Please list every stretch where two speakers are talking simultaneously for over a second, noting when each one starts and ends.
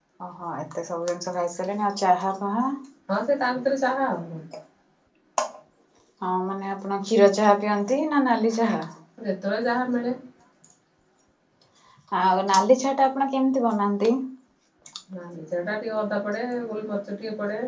none

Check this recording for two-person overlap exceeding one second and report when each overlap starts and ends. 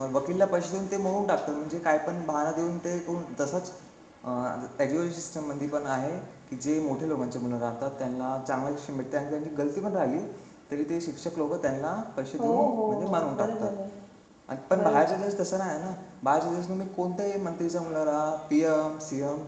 12.4-13.7

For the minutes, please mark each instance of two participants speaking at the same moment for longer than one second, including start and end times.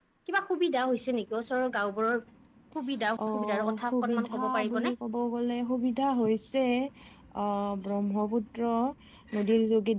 3.3-4.9

